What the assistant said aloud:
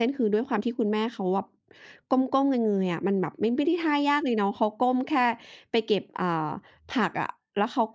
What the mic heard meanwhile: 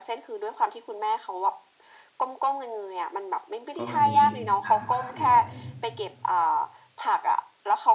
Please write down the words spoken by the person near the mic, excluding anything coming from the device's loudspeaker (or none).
ก็มีฐานลูกค้าอยู่แล้ว